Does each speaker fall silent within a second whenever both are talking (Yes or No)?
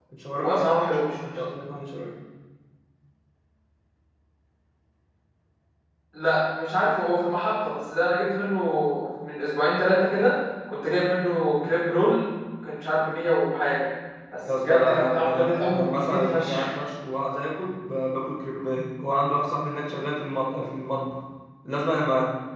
No